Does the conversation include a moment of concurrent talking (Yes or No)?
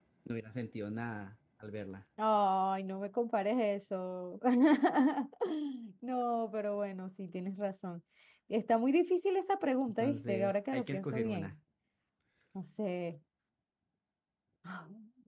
Yes